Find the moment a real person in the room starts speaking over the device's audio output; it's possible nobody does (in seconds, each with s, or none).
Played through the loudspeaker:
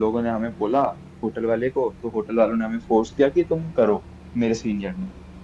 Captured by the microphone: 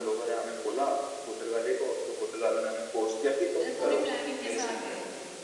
3.6 s